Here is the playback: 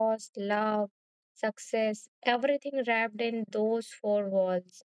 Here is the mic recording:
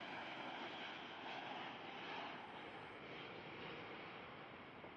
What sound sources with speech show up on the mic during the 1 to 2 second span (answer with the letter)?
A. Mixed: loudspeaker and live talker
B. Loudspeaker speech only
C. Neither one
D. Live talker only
C